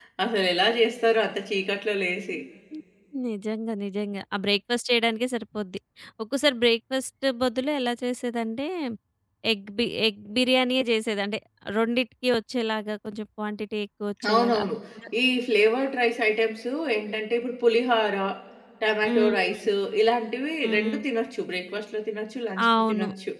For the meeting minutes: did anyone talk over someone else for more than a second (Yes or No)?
No